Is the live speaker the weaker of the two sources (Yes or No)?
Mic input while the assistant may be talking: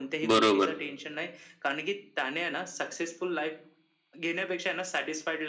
No